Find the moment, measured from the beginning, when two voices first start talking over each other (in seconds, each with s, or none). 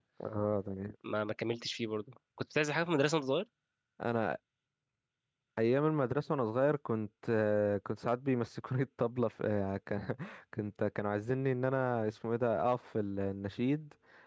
none